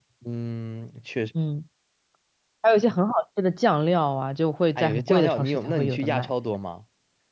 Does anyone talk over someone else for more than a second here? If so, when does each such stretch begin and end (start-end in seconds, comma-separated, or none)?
4.8-6.3